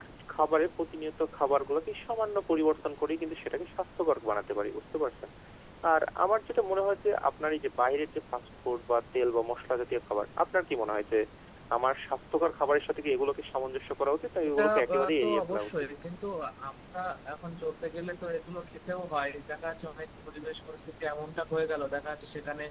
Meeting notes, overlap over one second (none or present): present